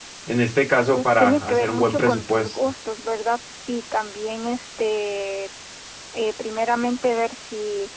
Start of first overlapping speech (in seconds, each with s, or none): 0.9 s